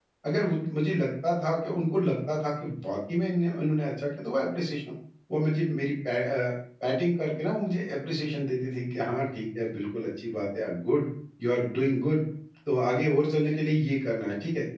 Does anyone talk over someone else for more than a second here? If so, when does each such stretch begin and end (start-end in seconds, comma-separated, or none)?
none